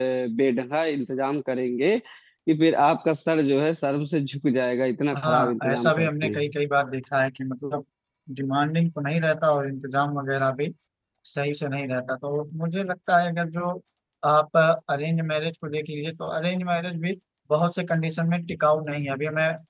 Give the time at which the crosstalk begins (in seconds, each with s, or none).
5.1 s